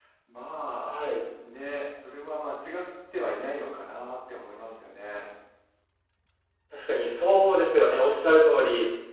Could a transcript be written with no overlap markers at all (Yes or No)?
Yes